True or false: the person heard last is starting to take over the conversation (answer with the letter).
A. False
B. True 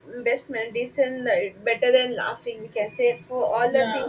A